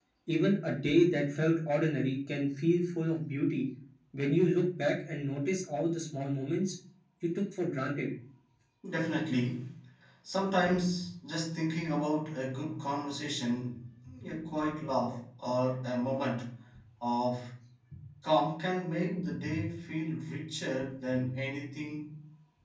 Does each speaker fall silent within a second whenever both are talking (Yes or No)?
Yes